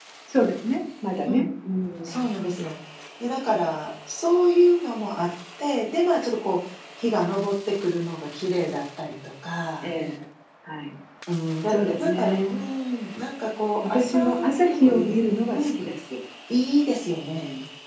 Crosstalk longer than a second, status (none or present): present